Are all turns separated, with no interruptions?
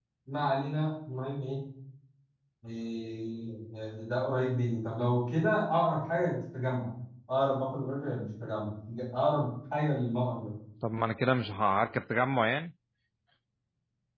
Yes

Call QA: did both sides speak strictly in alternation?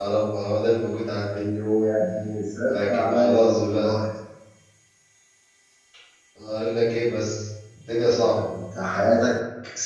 No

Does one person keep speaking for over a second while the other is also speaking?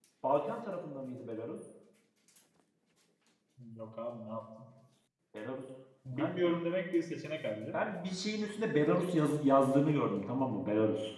No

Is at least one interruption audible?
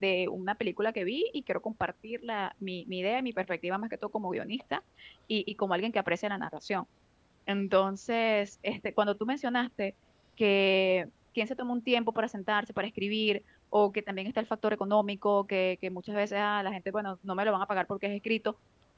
No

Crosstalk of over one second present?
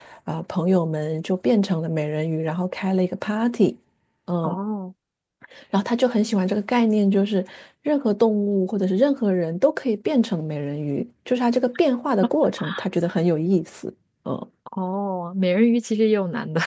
No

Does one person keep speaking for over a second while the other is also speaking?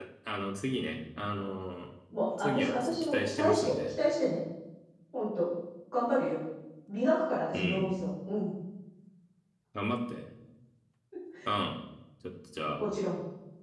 Yes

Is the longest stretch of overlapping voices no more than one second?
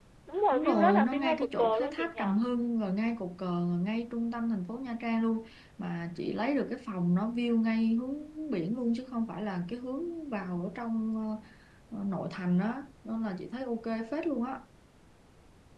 No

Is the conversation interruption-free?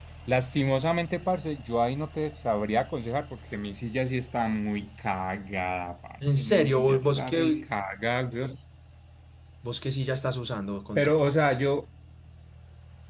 No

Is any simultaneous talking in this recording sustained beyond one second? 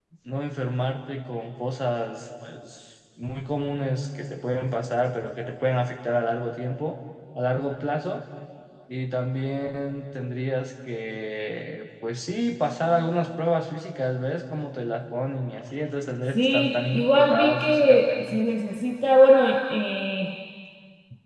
Yes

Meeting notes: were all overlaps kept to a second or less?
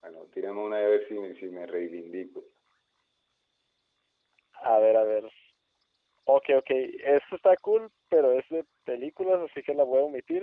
Yes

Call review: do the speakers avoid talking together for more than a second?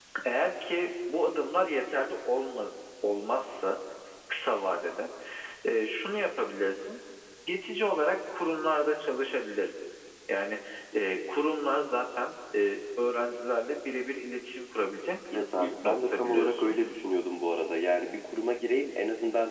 No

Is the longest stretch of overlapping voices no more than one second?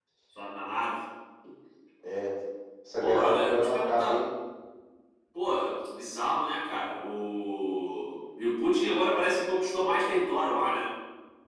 No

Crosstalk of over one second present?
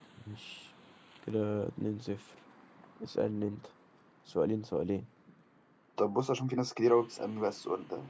No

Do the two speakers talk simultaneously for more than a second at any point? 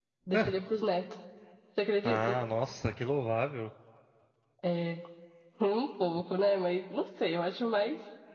No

